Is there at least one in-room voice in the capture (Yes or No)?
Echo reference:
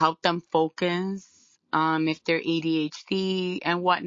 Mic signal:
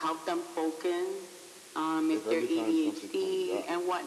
Yes